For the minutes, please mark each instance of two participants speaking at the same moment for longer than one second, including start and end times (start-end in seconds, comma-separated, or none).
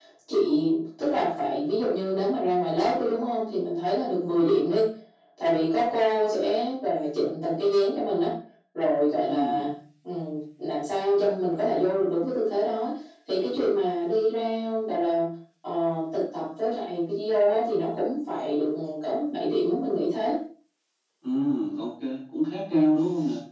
none